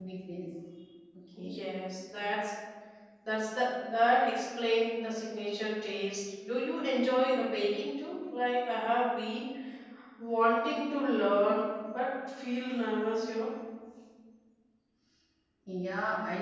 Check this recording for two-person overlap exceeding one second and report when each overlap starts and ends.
none

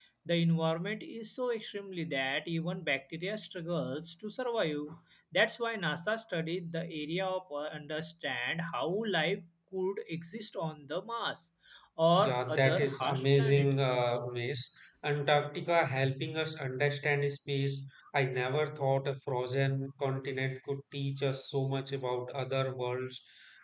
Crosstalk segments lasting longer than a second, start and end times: 12.1-13.7

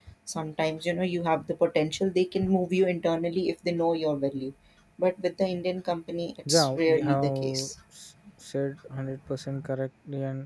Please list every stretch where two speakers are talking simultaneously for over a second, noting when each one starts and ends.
6.5-7.7

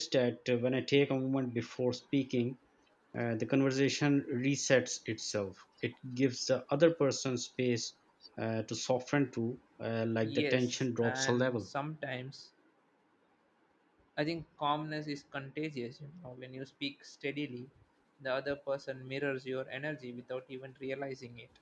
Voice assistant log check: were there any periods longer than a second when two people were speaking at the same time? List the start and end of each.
10.2-11.7

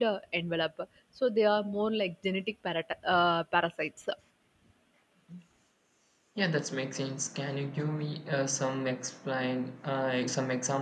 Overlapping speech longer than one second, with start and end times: none

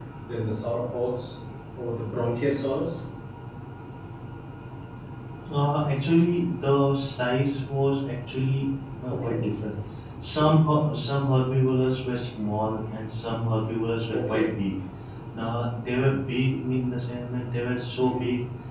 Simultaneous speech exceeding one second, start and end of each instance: none

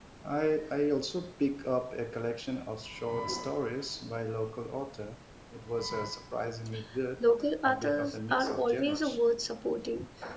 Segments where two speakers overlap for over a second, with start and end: 7.6-9.2

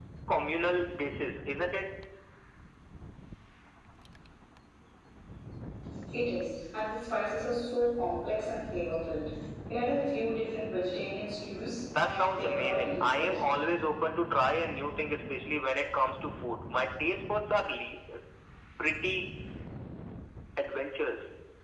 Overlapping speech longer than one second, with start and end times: 12.0-13.4

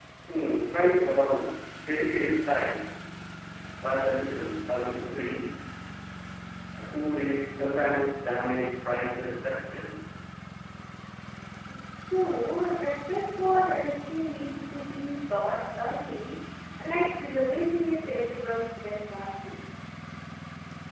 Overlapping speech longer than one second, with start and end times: none

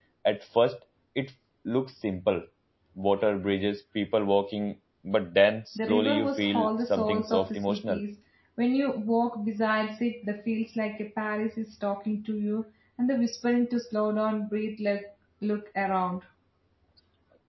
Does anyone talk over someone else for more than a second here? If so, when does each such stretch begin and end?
5.8-8.0

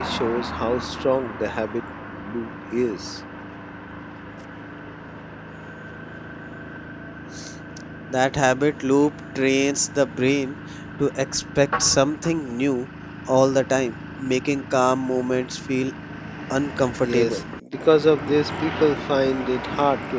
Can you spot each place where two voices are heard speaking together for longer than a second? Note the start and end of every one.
none

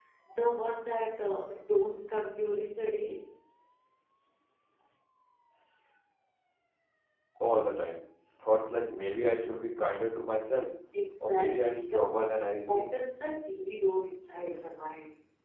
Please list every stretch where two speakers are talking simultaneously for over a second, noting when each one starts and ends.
11.2-12.9

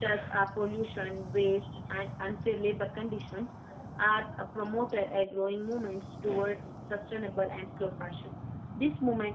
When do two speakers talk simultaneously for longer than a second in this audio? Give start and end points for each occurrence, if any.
none

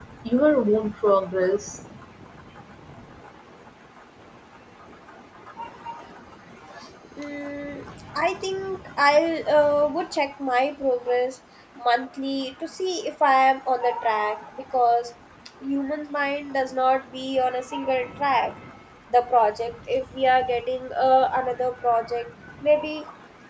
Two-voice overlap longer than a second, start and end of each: none

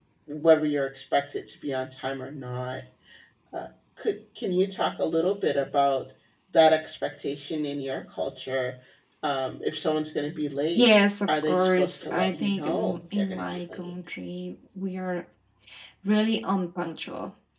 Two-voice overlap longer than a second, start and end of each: 11.4-13.9

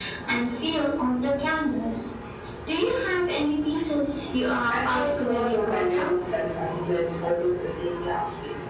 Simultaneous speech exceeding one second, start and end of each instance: 4.7-6.1

